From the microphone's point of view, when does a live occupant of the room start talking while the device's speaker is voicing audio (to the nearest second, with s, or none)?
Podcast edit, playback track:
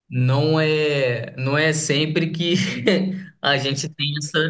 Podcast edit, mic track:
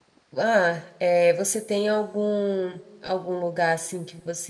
0 s